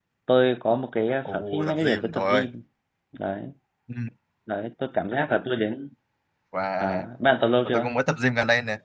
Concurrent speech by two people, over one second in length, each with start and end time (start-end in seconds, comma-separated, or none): 1.2-2.5